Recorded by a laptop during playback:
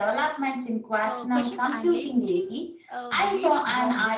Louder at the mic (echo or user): echo